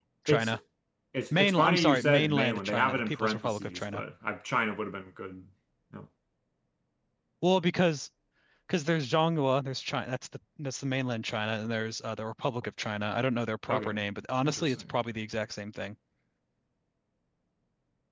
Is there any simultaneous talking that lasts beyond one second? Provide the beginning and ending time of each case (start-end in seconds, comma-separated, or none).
1.3-4.0